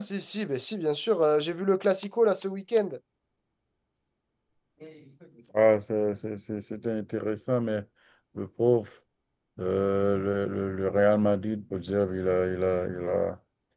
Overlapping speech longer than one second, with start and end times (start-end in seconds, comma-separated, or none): none